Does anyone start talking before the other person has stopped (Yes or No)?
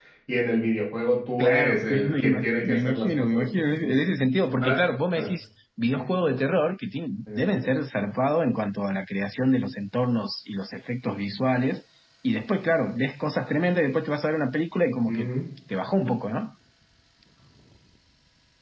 Yes